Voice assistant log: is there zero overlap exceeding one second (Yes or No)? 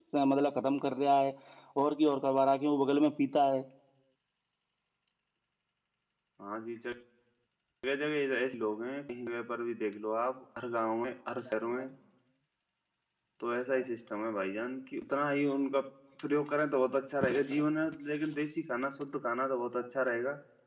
Yes